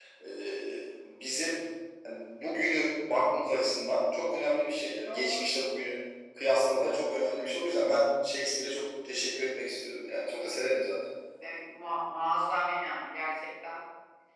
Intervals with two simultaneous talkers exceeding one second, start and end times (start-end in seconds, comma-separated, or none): none